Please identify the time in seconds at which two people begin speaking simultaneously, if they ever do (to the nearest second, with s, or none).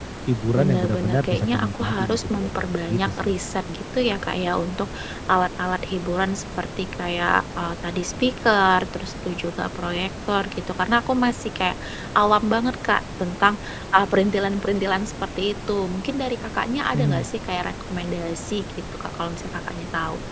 1 s